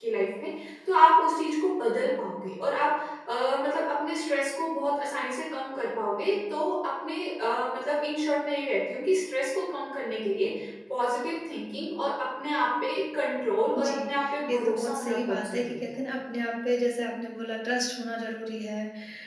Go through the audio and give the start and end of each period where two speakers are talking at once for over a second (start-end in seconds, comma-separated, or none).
14.5-15.8